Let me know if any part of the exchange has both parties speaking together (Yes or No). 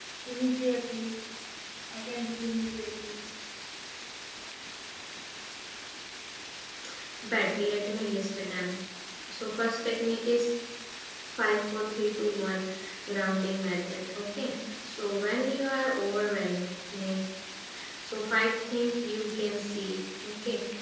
No